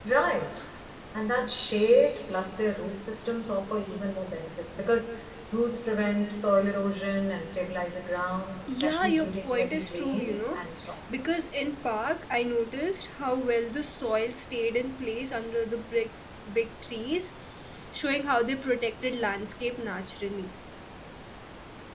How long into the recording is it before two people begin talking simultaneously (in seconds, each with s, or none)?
8.7 s